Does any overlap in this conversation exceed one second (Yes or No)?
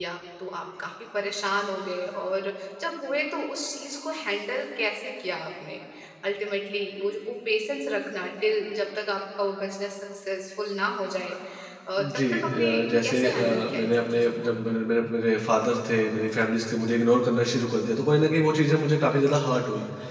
Yes